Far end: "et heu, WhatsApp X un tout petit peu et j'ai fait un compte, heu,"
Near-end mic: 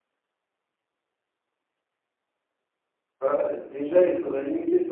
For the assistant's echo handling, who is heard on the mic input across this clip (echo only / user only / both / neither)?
user only